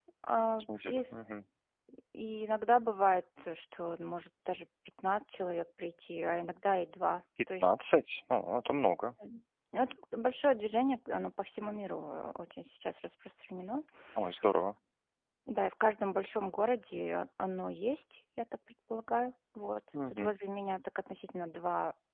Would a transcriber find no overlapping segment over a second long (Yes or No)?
Yes